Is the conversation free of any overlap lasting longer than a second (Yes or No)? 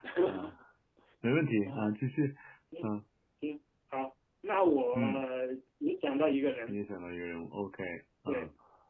Yes